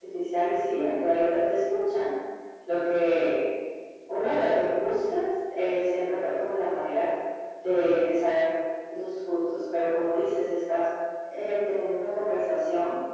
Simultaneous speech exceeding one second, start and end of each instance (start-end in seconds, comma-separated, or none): none